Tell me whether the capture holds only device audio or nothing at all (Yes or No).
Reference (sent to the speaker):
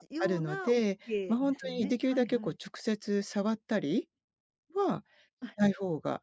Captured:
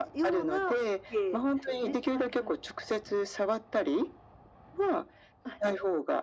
Yes